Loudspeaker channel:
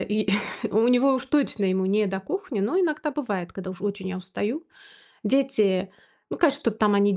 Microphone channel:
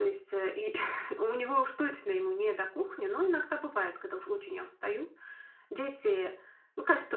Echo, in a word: present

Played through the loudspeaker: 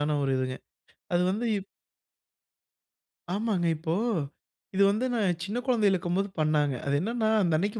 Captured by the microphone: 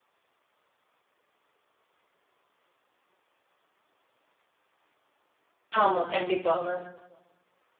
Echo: none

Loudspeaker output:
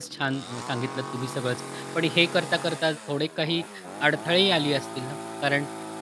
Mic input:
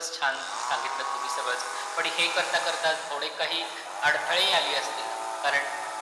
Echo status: present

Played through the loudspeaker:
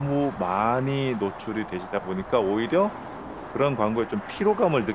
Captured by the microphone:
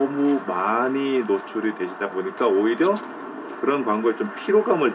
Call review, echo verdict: present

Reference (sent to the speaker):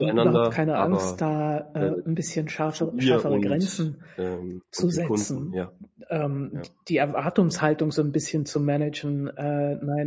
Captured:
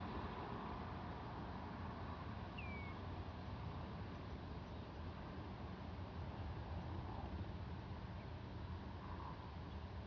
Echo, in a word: none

